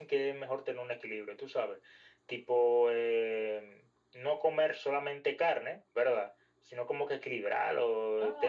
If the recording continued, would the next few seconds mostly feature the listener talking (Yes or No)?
Yes